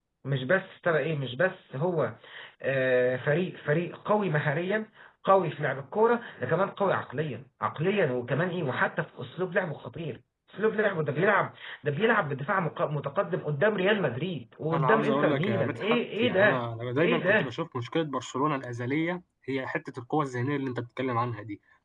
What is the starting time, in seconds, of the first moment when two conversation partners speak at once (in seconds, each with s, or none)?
14.7 s